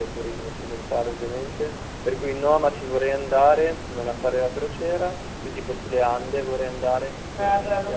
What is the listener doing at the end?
taking over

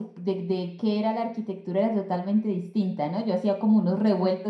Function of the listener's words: listening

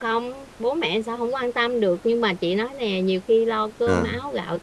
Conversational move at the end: listening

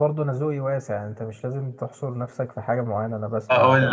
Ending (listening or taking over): taking over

